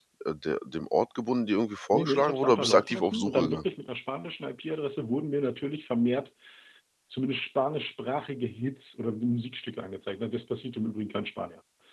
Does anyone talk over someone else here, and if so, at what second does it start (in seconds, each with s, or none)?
1.9 s